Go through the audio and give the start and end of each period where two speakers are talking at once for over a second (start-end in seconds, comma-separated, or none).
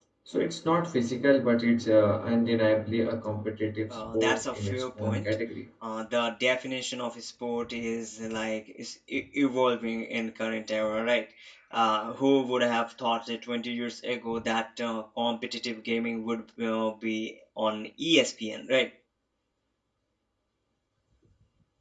3.9-5.2